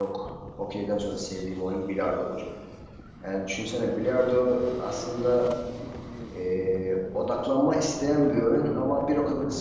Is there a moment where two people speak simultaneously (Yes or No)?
No